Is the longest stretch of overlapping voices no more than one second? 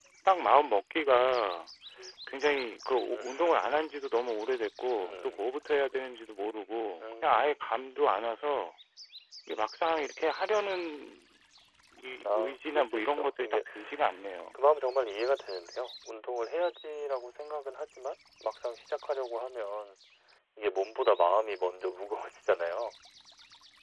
No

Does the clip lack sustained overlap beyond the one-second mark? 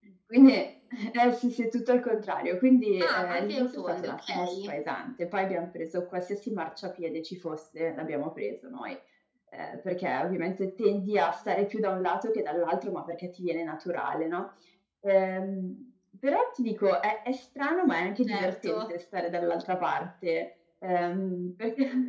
No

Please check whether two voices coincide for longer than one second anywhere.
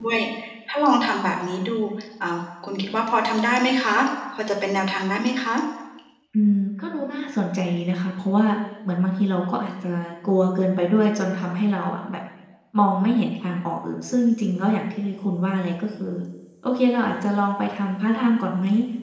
No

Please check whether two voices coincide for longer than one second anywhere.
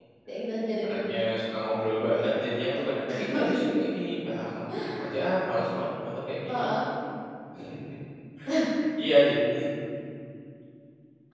No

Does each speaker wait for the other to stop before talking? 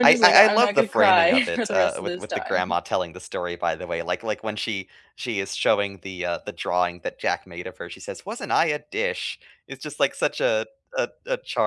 No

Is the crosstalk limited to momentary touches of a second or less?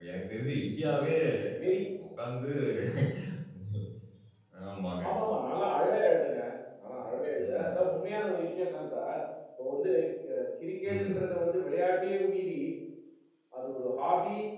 Yes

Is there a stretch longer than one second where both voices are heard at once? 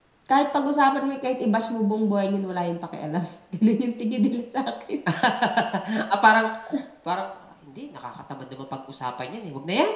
No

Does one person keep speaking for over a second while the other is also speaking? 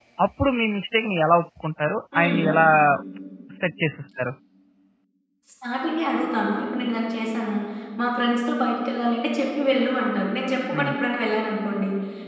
No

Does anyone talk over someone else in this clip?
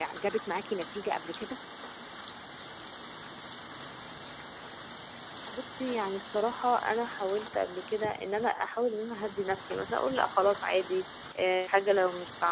No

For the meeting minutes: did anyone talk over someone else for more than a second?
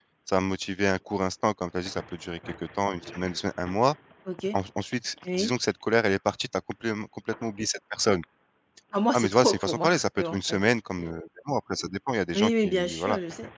Yes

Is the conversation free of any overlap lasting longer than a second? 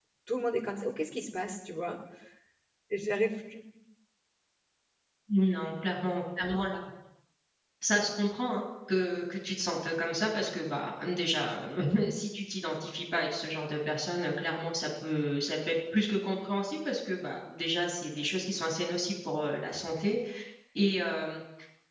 Yes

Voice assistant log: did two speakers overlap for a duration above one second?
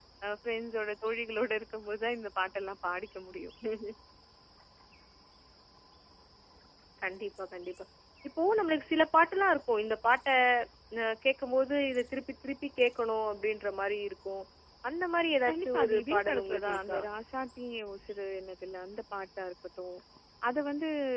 Yes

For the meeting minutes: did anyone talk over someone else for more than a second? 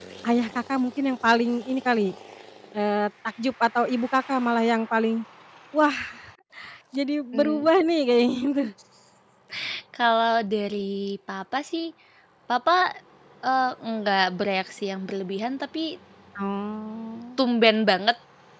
No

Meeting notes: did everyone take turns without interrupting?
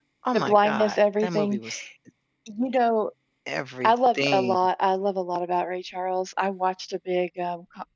No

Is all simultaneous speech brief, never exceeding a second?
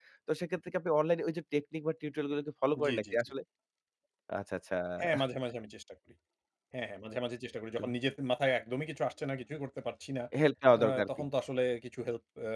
Yes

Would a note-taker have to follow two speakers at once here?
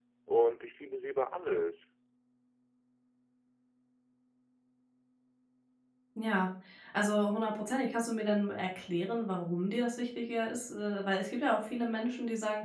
No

